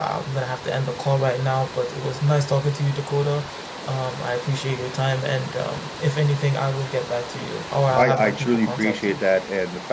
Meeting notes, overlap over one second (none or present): present